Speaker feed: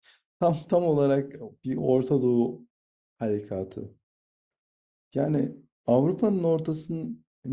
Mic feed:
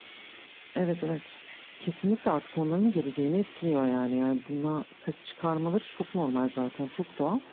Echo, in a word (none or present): none